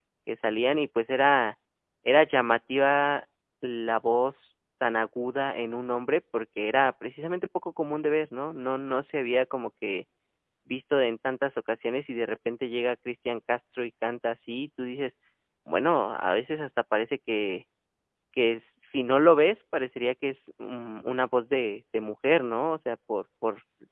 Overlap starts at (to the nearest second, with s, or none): none